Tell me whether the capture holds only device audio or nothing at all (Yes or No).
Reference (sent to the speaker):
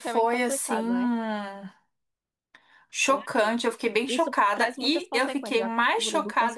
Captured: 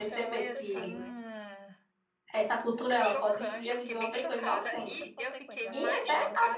No